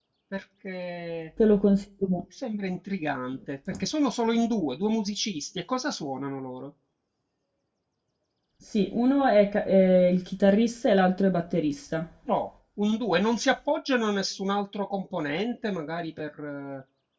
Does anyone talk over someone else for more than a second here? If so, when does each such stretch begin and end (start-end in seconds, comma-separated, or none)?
none